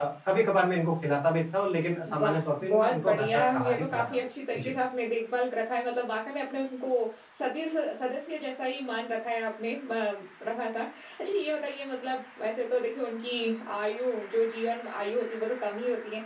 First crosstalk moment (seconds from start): 2 s

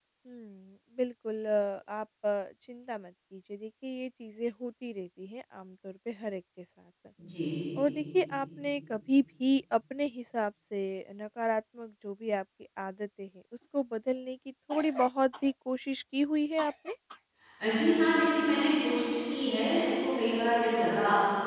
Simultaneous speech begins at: none

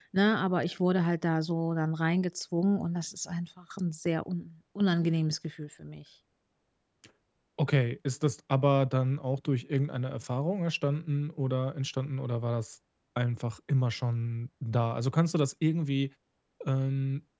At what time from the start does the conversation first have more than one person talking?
none

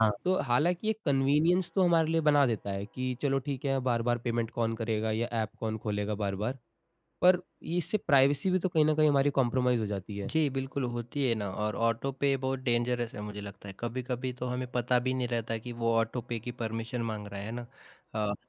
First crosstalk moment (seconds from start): none

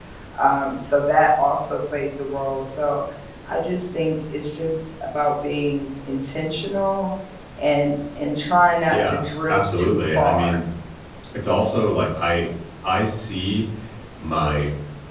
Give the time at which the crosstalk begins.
9 s

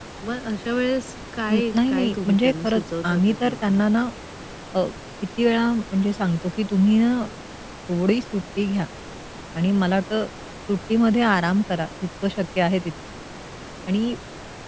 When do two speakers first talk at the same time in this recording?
1 s

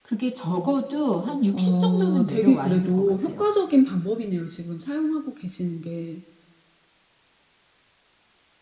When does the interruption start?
2 s

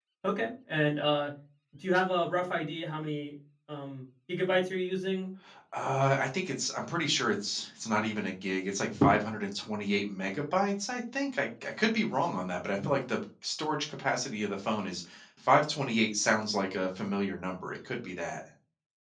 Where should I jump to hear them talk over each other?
none

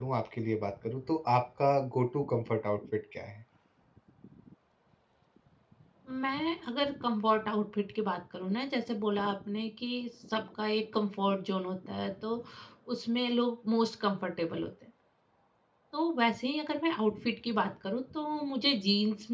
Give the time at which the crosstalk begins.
none

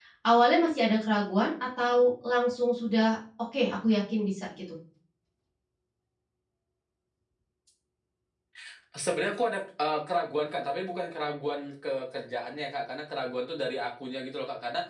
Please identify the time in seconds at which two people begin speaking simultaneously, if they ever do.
none

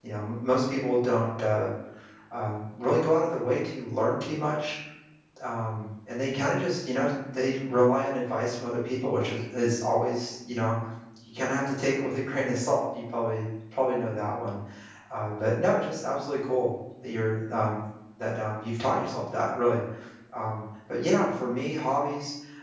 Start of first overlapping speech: none

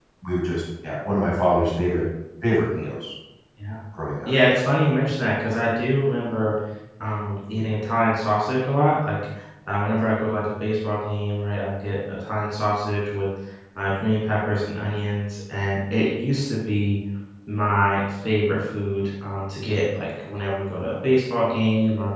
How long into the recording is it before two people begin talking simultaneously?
none

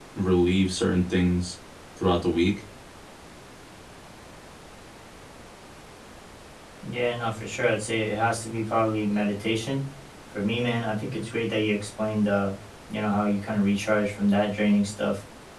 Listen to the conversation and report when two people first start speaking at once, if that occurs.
none

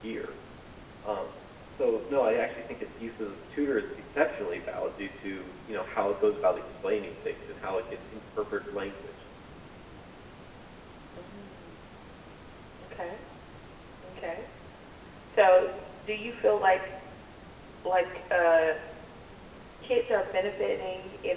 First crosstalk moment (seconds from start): none

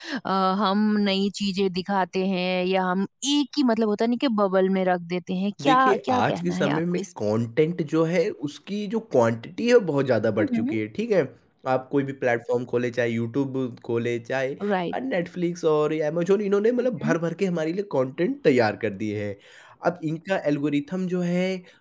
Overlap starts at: 6 s

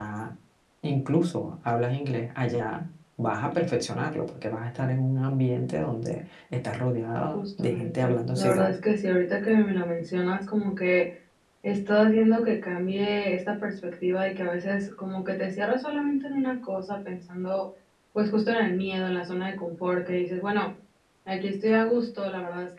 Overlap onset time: 7 s

